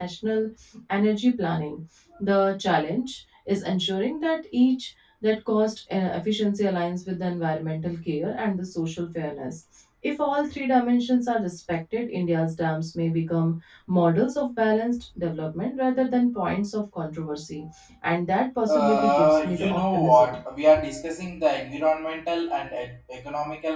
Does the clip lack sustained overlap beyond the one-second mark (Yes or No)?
No